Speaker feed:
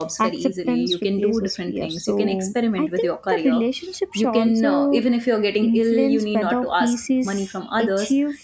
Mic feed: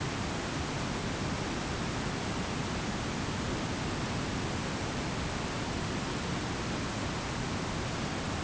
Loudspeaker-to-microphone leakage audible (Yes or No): No